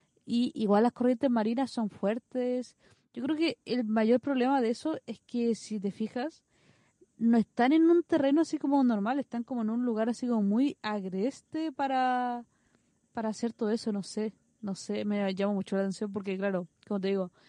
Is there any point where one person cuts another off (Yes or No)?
No